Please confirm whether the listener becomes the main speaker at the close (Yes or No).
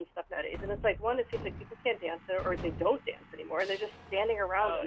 Yes